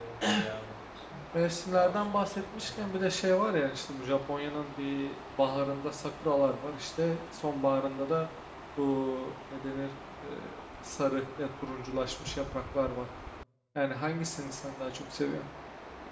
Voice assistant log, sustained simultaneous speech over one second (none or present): present